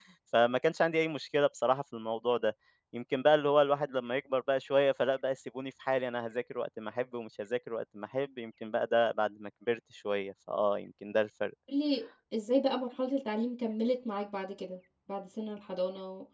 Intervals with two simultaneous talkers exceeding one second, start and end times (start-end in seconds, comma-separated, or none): none